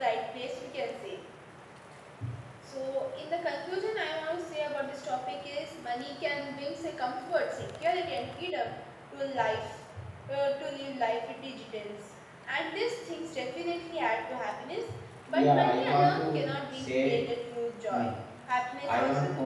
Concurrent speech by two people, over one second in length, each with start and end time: 15.3-17.3

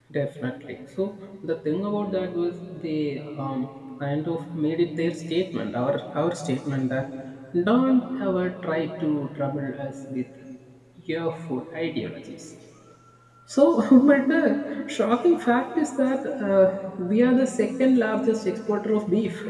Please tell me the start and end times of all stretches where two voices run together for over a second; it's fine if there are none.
none

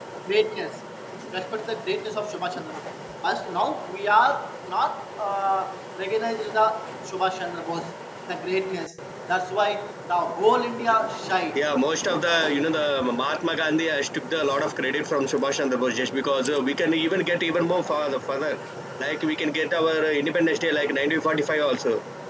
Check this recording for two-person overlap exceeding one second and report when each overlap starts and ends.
none

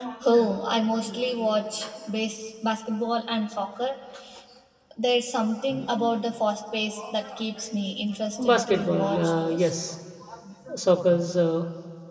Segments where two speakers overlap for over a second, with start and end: 8.4-9.8

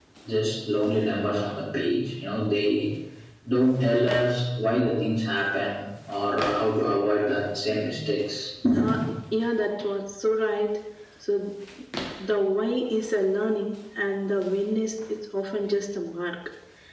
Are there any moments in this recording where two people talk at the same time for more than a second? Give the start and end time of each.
none

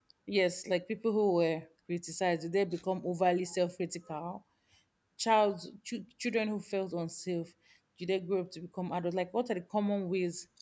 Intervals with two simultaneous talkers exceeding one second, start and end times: none

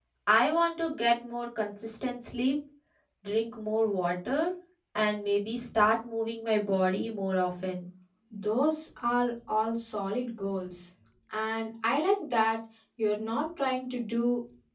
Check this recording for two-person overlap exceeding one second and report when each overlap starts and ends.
none

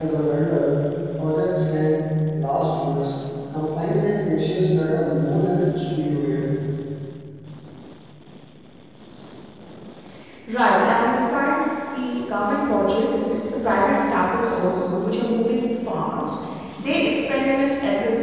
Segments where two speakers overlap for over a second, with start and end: none

